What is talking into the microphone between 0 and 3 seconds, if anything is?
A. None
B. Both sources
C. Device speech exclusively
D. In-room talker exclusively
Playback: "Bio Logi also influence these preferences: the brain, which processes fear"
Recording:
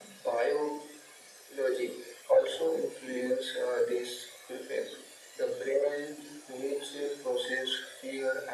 C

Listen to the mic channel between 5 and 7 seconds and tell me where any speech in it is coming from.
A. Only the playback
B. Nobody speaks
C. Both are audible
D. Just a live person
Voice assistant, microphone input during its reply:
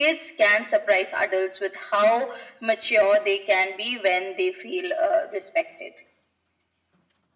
A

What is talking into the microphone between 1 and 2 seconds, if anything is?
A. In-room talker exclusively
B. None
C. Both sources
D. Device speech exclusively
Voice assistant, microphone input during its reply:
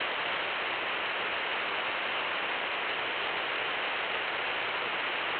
B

